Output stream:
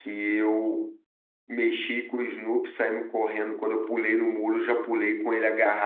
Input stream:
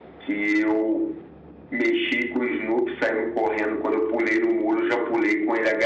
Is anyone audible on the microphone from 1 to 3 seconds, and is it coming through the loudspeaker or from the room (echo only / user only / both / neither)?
echo only